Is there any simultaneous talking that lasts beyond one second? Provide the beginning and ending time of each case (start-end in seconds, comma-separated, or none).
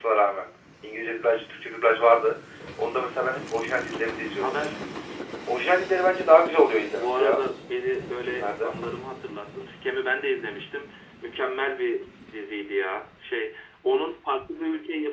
none